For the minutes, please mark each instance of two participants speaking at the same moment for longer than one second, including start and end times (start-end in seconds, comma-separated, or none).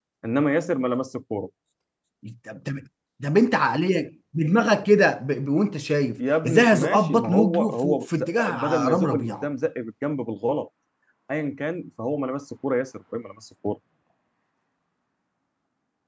6.2-9.4